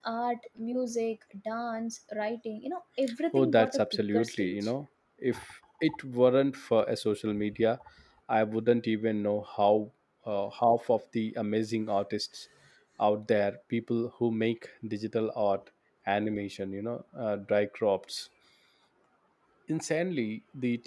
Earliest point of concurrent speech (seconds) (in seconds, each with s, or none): 3.3 s